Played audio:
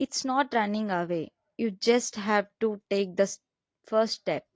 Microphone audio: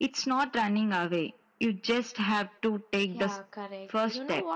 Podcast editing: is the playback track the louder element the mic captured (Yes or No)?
Yes